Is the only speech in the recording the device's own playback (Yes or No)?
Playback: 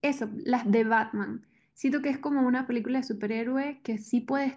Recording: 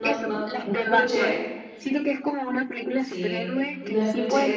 No